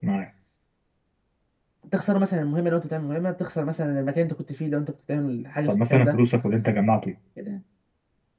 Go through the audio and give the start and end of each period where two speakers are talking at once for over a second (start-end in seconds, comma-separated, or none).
none